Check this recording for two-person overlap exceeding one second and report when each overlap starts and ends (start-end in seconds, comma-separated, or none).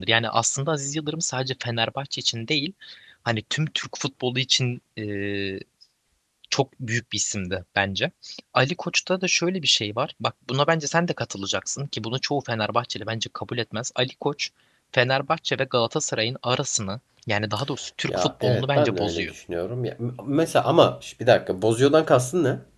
18.0-19.3